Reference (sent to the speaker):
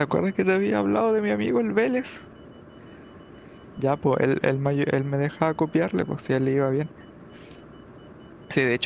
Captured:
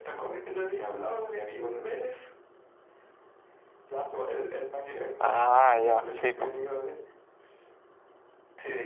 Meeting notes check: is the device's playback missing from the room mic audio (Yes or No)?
No